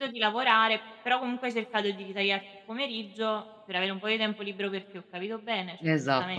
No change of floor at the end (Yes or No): No